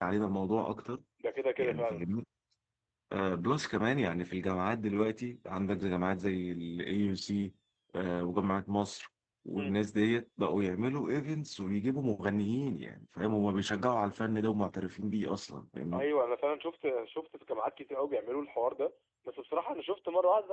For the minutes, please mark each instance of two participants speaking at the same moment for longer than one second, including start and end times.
none

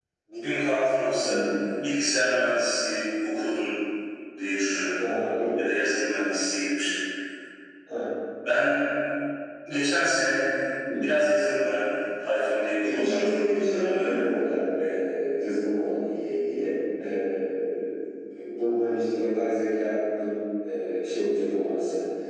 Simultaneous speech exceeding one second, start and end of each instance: 12.8-14.5

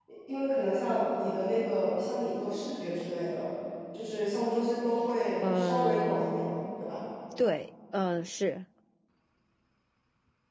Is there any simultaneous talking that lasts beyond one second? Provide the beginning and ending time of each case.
5.4-6.7

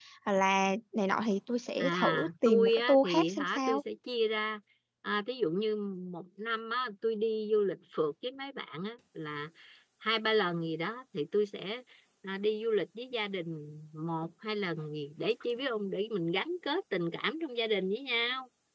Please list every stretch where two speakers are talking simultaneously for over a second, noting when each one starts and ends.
1.8-3.8

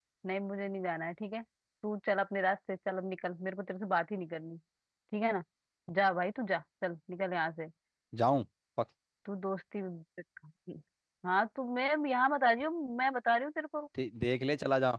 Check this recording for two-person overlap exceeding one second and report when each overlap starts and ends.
none

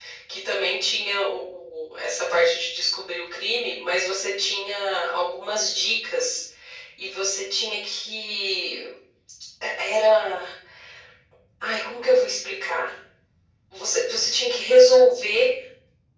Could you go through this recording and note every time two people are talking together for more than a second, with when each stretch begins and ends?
none

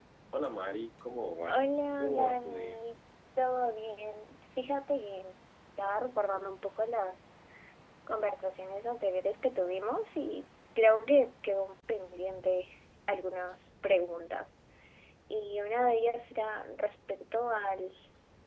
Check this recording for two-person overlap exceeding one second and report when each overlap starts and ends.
1.5-2.8

